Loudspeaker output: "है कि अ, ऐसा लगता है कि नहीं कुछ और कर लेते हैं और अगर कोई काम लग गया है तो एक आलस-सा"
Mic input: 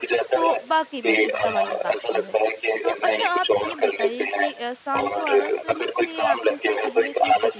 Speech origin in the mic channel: both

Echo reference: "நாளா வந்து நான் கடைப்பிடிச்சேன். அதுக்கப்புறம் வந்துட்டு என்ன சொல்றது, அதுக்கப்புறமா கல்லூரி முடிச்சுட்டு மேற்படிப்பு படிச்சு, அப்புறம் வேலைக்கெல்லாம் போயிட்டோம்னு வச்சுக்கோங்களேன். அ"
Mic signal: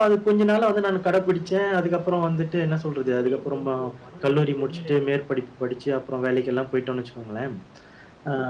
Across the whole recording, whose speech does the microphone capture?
both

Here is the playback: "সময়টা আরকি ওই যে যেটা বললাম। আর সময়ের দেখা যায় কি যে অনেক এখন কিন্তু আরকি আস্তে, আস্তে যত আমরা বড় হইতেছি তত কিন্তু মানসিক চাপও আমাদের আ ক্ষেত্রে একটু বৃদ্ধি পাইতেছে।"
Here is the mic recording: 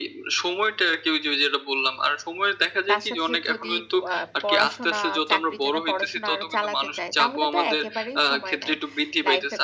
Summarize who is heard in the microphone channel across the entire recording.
both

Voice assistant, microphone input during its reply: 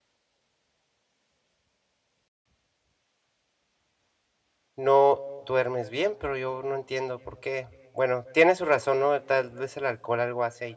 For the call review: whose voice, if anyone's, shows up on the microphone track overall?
user only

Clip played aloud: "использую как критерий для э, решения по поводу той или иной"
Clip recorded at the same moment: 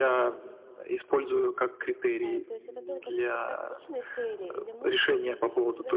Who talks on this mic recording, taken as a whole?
both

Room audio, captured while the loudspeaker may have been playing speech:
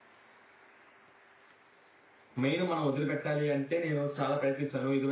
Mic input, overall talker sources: user only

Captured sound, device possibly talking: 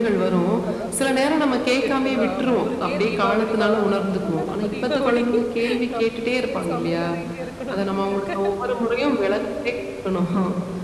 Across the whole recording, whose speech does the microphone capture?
both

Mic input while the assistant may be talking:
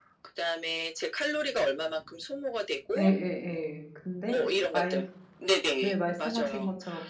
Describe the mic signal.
both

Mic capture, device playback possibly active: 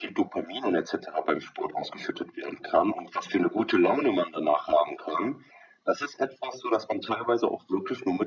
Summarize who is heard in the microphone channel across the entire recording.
echo only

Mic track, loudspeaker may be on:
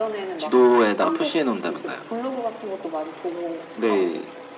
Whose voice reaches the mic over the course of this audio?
both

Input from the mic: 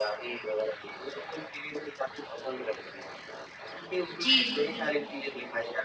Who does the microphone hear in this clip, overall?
both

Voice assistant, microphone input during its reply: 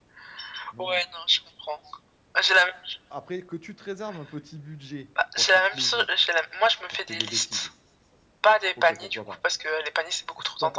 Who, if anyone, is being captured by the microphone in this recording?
both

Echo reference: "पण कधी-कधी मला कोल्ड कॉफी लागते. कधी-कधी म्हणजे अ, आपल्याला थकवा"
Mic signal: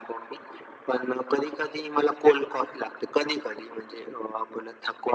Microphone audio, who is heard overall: echo only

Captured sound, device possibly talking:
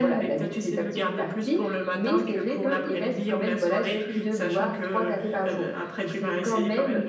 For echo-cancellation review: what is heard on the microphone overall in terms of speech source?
echo only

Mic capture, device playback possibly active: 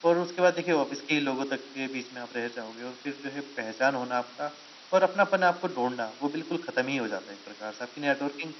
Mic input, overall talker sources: echo only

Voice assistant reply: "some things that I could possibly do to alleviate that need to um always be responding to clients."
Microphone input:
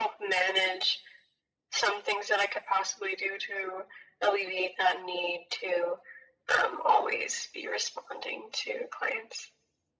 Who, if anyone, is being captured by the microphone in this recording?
echo only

